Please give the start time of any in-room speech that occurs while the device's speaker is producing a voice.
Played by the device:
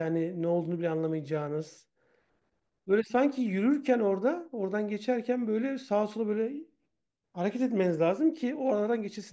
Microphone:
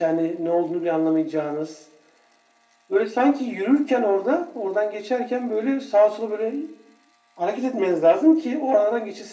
none

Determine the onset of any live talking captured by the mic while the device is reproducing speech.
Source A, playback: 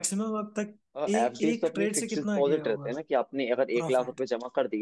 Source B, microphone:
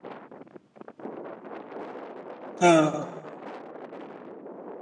3 s

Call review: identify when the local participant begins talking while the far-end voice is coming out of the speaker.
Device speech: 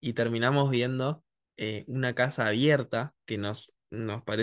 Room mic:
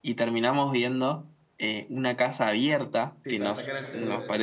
3 s

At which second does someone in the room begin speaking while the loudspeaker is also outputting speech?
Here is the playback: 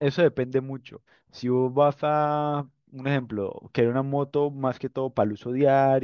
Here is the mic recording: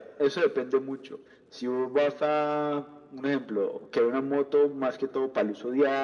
none

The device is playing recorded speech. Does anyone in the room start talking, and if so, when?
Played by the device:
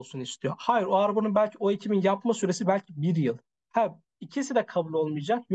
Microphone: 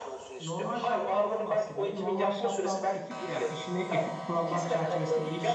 0 s

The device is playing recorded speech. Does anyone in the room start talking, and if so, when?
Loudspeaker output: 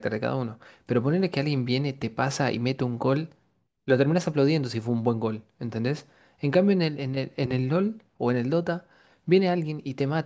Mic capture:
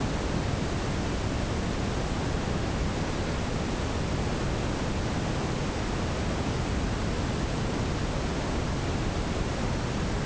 none

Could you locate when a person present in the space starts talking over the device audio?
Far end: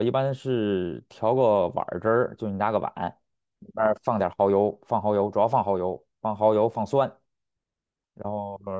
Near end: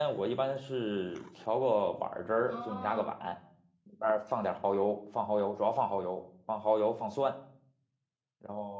2 s

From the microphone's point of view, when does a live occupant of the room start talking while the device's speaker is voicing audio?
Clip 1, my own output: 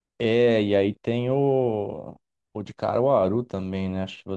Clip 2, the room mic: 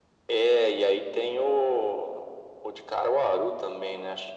none

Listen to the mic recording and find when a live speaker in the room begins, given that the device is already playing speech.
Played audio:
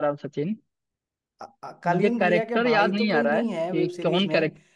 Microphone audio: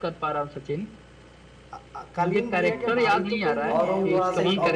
3 s

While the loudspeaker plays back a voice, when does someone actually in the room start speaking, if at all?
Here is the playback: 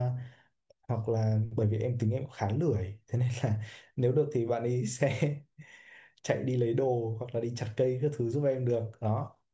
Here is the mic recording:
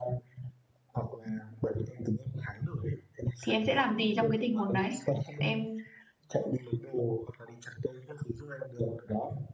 3 s

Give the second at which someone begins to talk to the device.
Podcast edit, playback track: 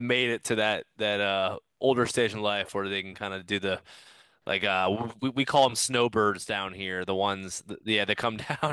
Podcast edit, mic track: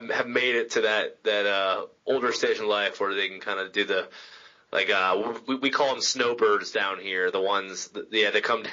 none

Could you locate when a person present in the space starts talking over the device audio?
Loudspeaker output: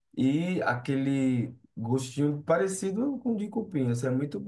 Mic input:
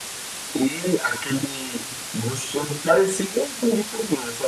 none

